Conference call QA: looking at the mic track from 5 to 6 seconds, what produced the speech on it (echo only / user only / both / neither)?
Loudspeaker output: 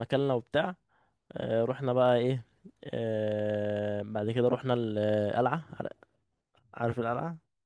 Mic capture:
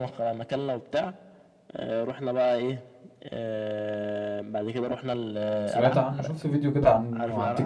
both